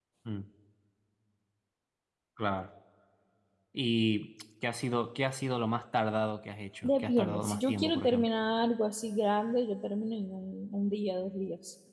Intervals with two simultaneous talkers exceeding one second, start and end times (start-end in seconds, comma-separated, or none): 6.8-8.3